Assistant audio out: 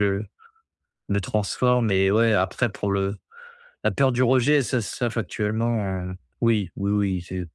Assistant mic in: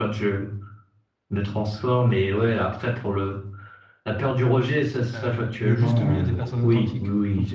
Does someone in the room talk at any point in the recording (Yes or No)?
Yes